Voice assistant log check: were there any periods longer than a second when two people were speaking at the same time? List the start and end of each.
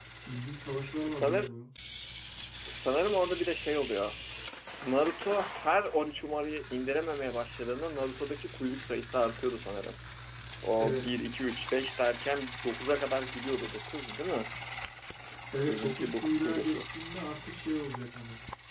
15.7-16.9

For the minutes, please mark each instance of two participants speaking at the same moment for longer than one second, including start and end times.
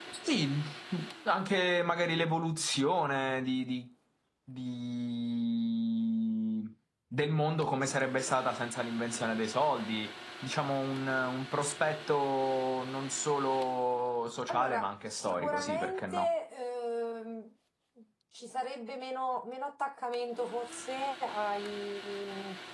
14.5-16.3

